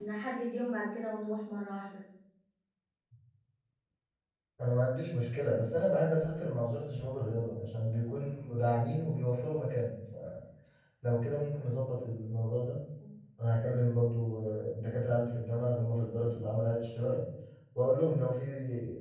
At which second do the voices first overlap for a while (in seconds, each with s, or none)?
none